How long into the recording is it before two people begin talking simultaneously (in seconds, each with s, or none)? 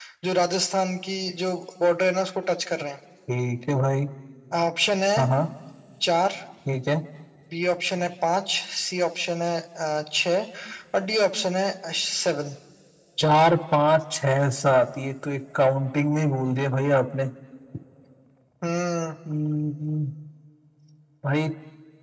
none